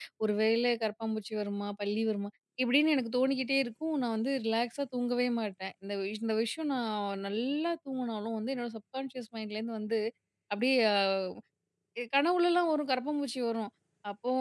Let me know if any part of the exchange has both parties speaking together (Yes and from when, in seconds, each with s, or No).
No